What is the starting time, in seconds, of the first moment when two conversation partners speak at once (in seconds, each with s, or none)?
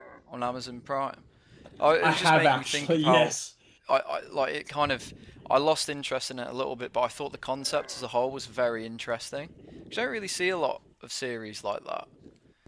2.0 s